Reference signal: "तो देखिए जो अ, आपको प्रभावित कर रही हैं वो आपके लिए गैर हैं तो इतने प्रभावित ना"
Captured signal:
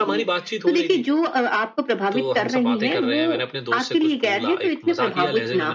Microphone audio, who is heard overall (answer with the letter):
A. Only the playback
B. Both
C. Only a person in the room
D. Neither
B